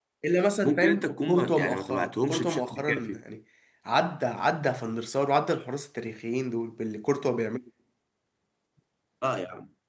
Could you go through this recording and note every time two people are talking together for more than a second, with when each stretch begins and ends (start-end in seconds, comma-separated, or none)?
0.6-3.2